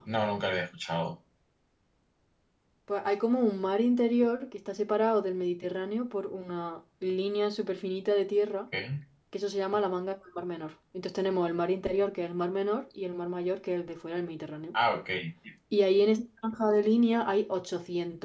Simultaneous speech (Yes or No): No